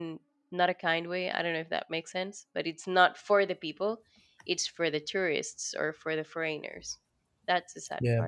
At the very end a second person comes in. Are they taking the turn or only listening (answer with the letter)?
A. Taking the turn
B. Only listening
A